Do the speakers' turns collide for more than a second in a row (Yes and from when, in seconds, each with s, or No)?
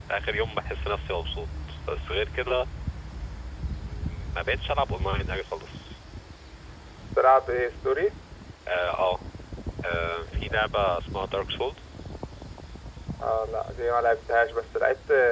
No